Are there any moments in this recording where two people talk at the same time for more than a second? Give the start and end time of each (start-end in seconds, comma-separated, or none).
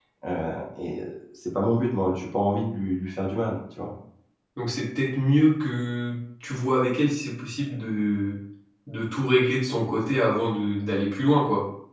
none